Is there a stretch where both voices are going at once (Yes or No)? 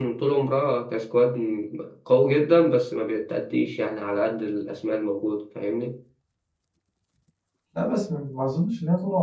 No